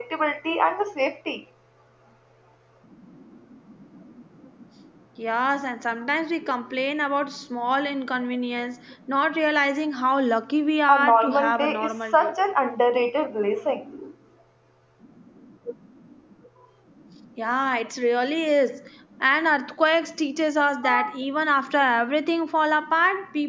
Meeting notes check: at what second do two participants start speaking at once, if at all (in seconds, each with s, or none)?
10.9 s